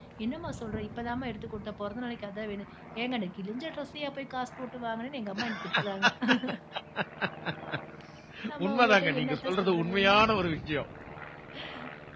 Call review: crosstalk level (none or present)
present